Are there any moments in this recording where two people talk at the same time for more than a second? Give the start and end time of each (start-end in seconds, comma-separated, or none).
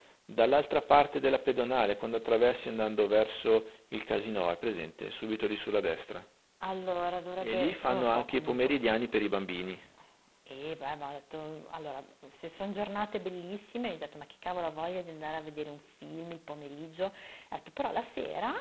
7.4-8.7